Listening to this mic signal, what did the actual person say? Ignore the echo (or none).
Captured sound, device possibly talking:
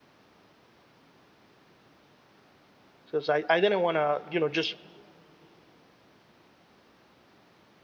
because I, I didn't want to you know just